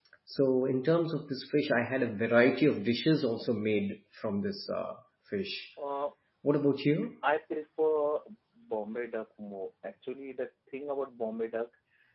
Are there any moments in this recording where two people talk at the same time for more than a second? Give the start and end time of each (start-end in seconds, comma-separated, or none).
none